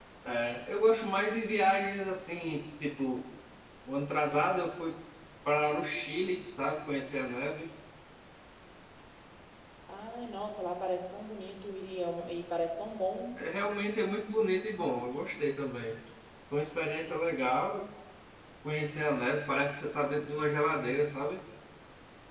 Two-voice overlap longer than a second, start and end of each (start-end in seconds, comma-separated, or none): none